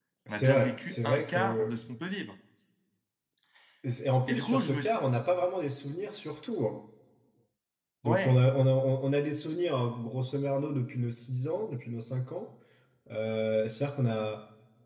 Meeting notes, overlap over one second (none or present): present